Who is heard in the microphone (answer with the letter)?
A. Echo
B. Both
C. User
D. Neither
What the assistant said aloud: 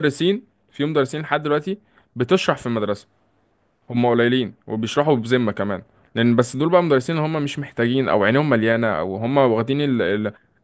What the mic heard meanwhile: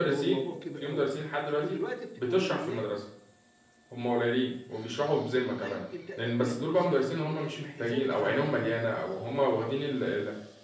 B